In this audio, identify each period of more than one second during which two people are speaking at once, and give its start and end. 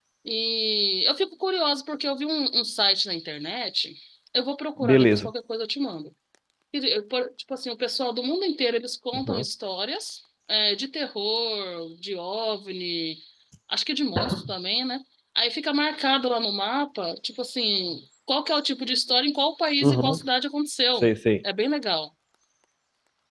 none

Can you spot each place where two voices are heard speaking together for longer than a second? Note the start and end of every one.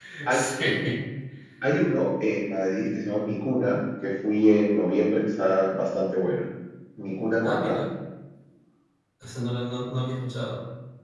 none

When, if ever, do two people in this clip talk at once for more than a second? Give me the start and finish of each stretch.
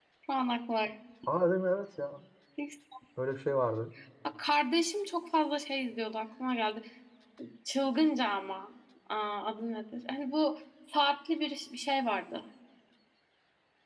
none

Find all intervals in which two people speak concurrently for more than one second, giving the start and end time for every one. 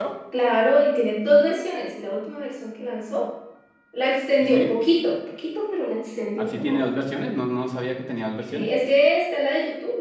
none

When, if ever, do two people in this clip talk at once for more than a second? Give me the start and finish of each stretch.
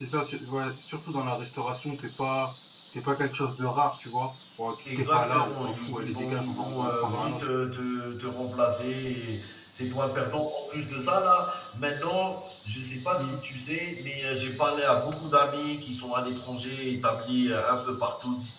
5.0-7.4

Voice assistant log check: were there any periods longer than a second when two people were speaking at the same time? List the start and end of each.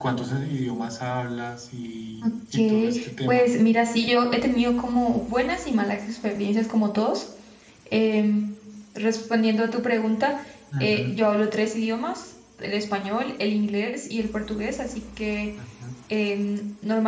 2.2-3.6

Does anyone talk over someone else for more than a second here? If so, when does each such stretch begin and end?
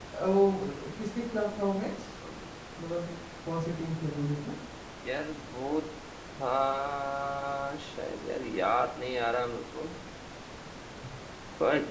none

